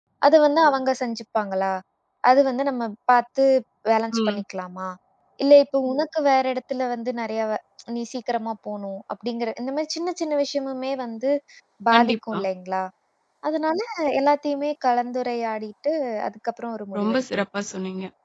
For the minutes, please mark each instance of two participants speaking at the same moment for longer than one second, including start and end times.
none

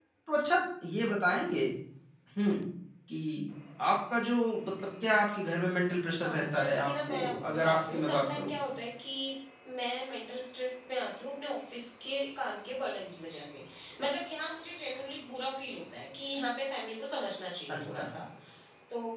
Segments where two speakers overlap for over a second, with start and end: 6.2-8.5

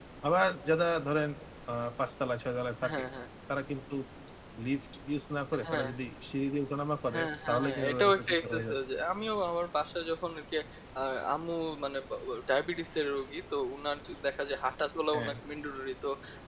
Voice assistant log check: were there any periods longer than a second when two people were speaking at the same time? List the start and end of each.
7.1-8.8

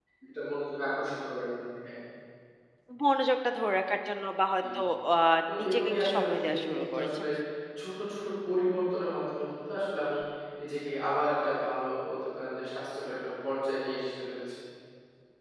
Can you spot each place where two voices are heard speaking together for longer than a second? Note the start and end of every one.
5.6-7.2

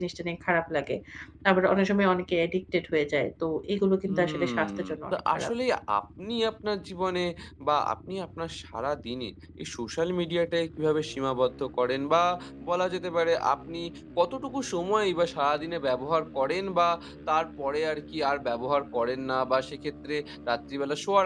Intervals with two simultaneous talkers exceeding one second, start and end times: 4.1-5.5

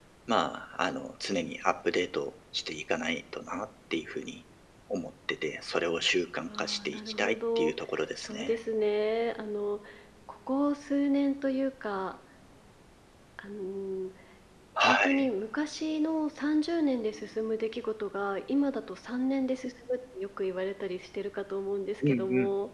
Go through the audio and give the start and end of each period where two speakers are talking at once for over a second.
6.5-7.7

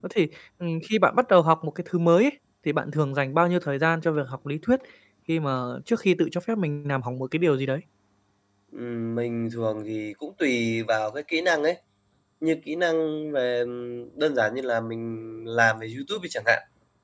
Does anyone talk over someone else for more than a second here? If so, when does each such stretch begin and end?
none

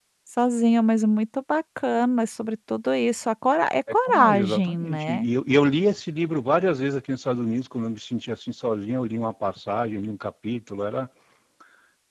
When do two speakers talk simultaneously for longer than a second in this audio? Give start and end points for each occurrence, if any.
3.9-5.3

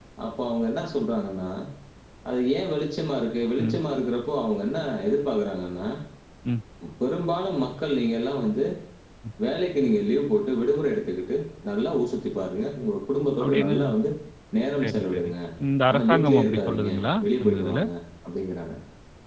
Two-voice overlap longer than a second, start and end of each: 15.9-17.8

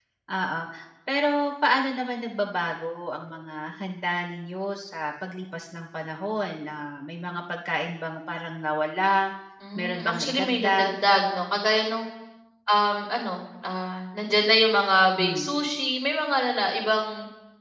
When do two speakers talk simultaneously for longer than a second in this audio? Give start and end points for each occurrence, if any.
9.8-11.1

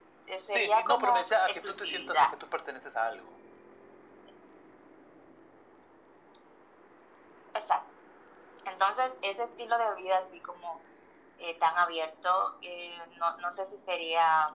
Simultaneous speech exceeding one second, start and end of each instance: 0.5-2.3

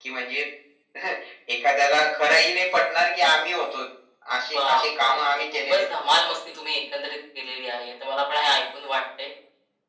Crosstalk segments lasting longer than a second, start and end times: 4.5-5.9

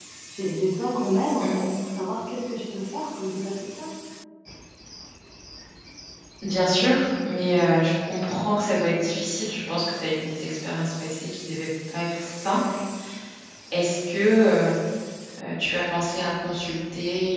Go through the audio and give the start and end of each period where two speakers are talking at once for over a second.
none

